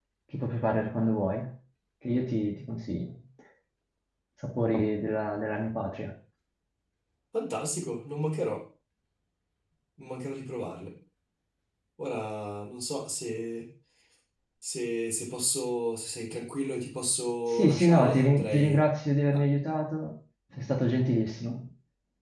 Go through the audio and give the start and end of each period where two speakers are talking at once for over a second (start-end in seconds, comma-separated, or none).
17.5-18.8